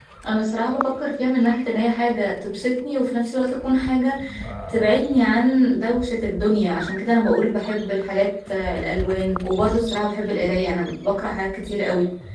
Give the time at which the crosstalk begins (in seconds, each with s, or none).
none